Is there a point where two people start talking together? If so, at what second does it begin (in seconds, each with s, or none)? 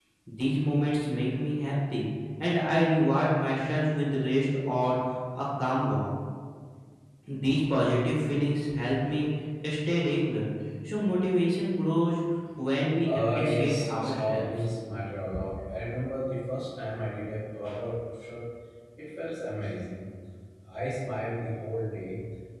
13.0 s